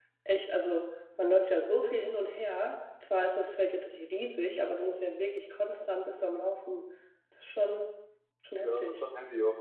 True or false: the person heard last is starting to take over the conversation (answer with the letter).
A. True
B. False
A